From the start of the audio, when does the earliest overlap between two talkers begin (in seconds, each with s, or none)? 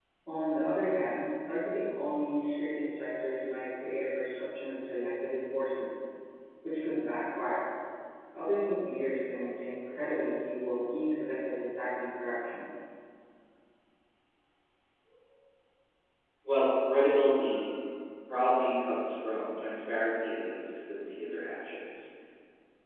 none